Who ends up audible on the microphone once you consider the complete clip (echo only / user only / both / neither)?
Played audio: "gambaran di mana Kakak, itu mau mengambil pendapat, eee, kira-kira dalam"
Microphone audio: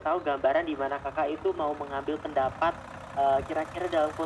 echo only